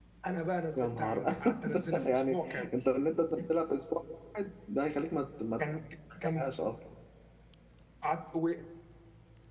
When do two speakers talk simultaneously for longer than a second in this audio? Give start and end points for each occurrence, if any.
0.8-2.8

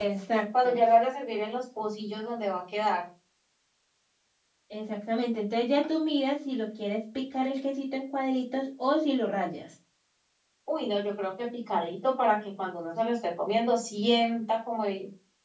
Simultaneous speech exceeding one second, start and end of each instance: none

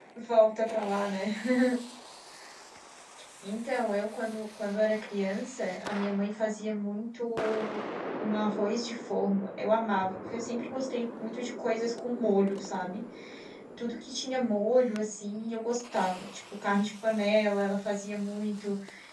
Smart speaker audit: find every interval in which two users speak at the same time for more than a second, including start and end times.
none

